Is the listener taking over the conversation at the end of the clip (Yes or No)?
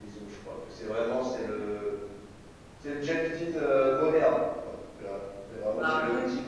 No